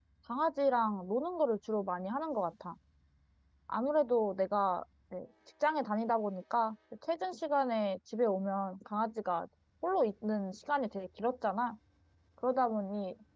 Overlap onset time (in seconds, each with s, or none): none